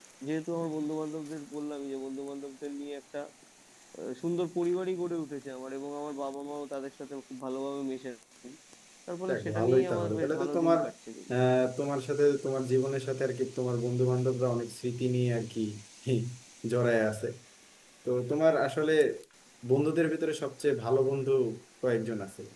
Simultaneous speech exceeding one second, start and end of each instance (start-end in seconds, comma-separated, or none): 9.3-10.8